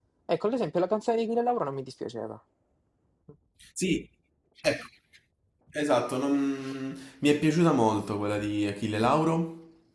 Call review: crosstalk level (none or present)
none